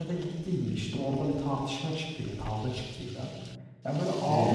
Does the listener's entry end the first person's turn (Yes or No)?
No